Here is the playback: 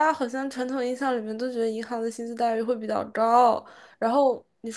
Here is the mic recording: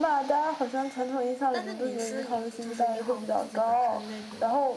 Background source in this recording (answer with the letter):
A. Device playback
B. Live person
B